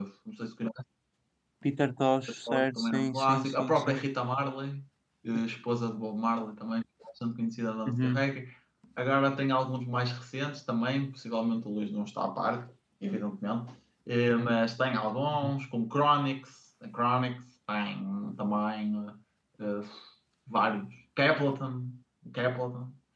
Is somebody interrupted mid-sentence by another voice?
Yes, from 2.5 s

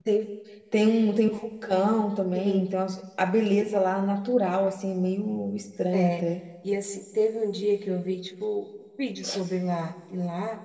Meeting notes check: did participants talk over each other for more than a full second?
No

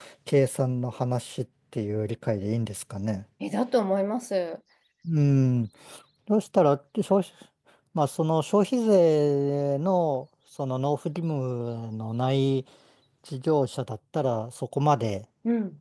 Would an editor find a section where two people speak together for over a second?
No

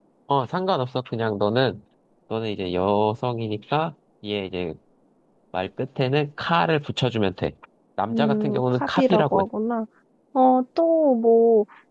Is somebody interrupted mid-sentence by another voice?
Yes, from 8.1 s

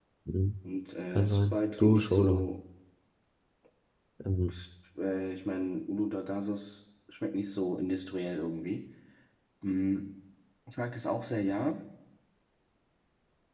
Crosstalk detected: Yes, from 1.1 s

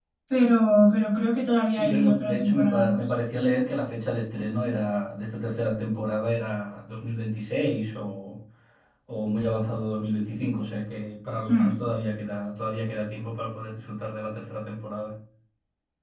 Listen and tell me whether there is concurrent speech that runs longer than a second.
Yes, from 1.7 s

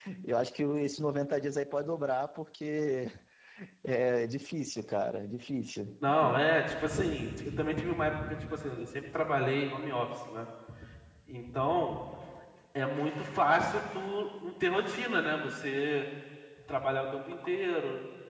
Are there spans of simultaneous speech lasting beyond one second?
No

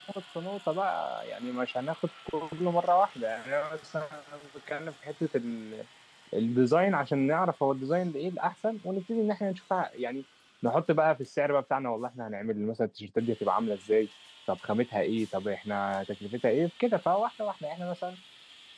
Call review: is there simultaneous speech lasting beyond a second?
No

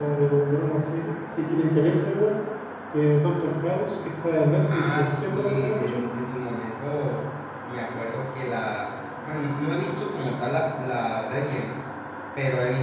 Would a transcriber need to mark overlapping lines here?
Yes, from 4.6 s

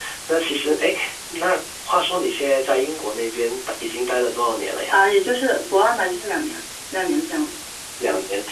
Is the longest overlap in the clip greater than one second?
No

